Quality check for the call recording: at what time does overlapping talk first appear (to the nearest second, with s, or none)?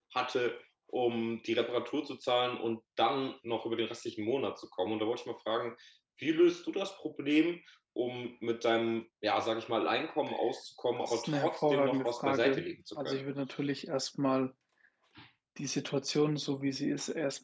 11 s